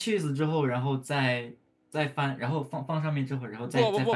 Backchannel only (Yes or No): No